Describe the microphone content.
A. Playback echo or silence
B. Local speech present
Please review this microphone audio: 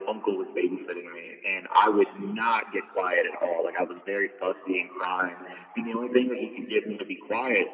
A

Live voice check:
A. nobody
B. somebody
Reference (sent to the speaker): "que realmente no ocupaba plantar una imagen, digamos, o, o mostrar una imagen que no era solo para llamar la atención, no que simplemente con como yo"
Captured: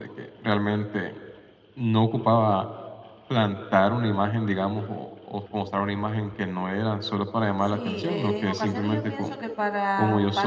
B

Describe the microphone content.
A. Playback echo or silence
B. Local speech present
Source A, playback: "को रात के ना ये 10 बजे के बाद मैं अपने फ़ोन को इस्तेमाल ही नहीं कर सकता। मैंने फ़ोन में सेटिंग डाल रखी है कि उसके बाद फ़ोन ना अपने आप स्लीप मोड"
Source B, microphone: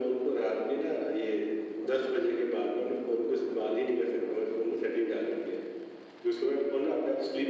A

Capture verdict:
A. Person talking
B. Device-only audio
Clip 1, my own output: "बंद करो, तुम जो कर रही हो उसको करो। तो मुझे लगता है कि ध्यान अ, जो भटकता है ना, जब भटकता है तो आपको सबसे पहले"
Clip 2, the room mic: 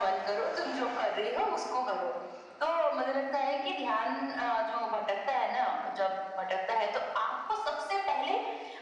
B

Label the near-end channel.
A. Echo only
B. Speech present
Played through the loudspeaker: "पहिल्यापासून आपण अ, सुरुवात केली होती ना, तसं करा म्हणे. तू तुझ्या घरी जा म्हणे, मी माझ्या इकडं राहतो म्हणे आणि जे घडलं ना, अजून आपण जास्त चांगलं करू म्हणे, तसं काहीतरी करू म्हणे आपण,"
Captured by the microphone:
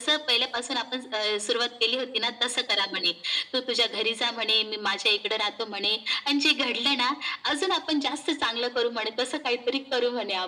A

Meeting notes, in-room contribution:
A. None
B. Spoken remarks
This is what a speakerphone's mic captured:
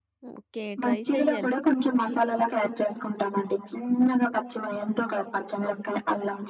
B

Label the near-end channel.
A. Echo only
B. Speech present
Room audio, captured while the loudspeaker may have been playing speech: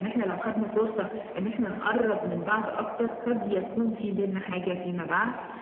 A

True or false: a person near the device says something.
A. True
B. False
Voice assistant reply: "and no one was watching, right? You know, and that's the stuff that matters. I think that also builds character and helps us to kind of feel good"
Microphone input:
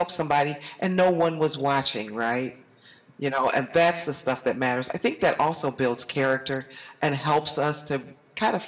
B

